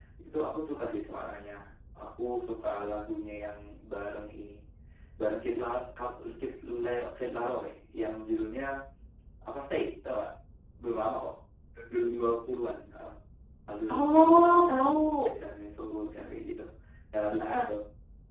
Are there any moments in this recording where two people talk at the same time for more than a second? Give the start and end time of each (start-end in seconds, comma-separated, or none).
13.9-15.3